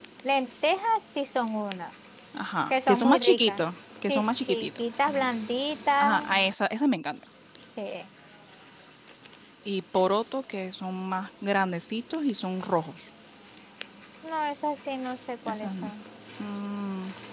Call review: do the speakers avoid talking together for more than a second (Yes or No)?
No